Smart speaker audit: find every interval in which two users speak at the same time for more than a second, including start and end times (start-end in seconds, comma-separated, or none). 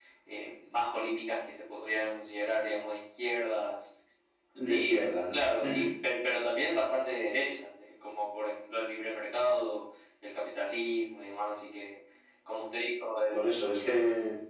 4.7-5.9